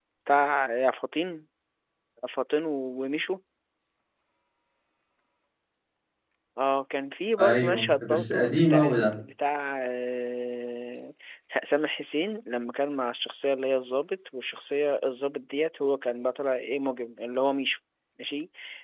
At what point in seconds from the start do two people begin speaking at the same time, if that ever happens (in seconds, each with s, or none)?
7.4 s